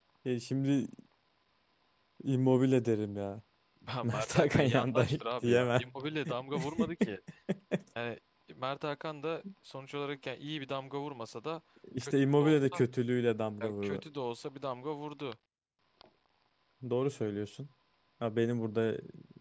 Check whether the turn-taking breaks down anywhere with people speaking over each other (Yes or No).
Yes